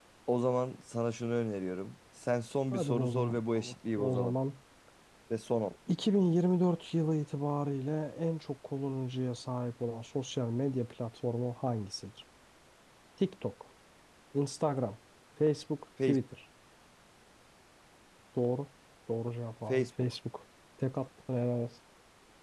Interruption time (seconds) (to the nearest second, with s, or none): 3 s